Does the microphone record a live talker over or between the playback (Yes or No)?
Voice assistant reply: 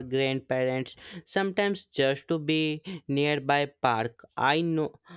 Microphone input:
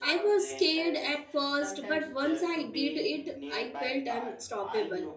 Yes